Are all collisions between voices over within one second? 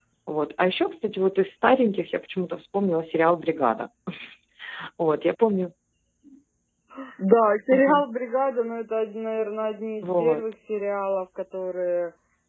Yes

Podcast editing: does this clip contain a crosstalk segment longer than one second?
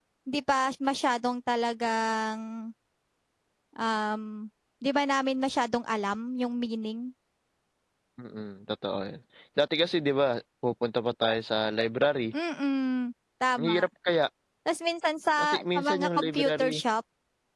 Yes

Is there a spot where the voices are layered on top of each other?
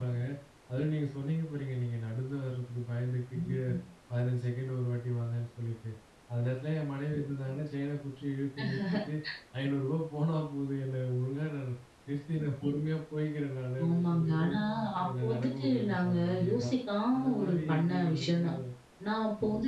Yes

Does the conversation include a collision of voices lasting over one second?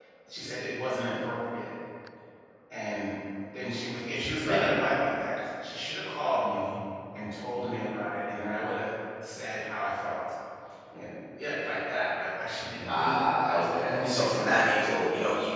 Yes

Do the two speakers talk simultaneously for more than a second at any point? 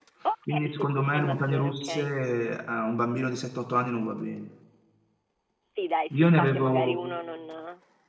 Yes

